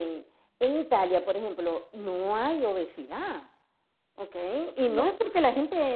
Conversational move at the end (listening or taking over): listening